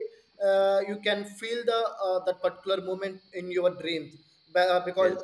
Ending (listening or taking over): listening